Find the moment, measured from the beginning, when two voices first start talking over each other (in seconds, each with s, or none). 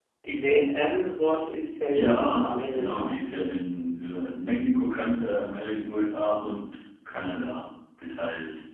1.9 s